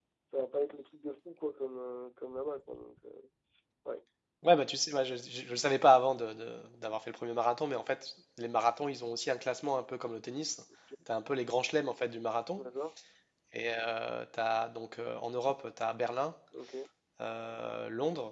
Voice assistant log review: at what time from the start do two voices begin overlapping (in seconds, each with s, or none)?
none